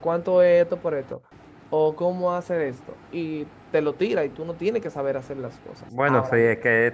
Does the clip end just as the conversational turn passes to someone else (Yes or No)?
Yes